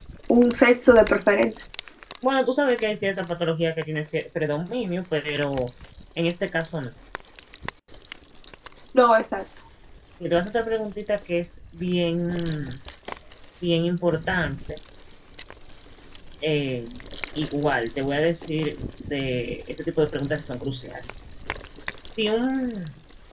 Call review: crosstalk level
none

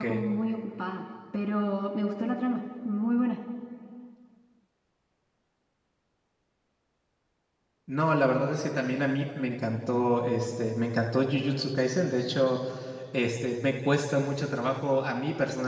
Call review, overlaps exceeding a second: none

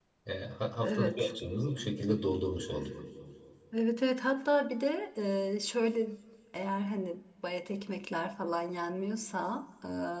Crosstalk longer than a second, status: none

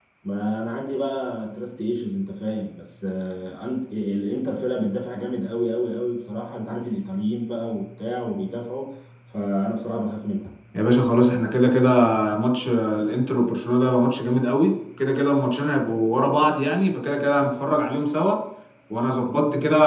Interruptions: none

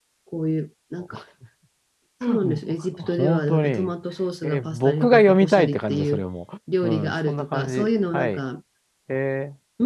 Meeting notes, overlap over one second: present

